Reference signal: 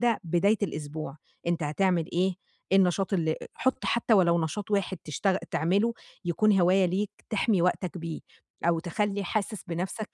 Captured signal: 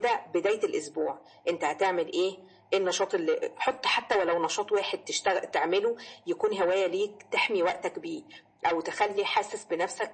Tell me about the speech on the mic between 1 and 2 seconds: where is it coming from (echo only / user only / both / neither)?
echo only